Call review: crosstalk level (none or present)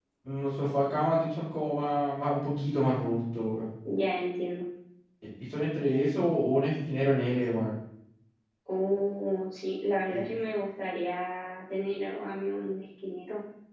none